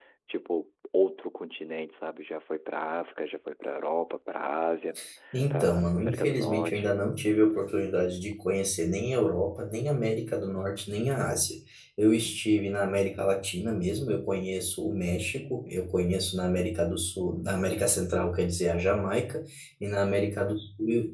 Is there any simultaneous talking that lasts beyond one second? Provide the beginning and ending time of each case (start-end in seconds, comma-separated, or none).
5.5-6.9